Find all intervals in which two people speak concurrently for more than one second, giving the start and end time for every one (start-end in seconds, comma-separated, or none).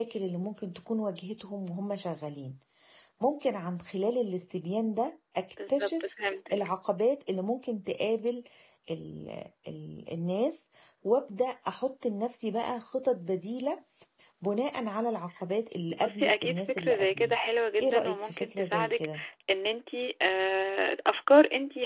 15.9-17.4, 17.8-19.1